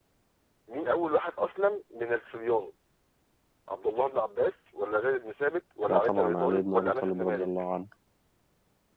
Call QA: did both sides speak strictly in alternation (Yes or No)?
No